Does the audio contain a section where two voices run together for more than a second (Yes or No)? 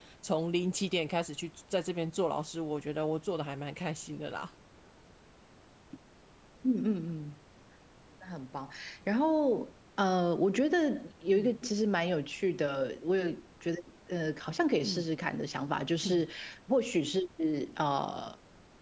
No